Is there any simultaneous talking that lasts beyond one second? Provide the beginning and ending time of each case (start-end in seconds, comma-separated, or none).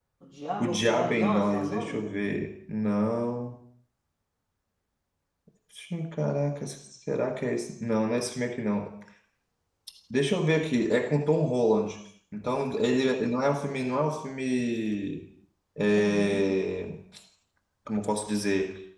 0.6-2.0